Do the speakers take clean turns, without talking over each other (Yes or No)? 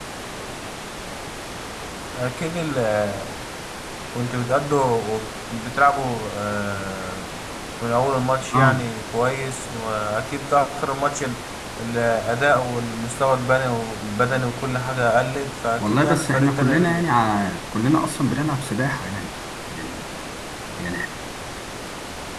No